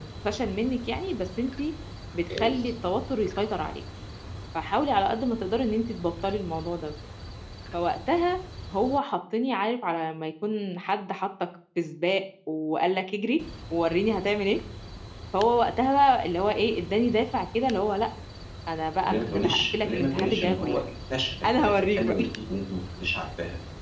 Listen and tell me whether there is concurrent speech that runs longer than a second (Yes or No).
Yes